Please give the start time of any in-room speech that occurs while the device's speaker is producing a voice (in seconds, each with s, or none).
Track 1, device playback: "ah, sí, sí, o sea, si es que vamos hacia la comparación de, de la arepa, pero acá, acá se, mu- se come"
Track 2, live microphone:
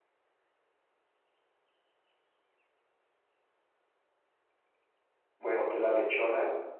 5.4 s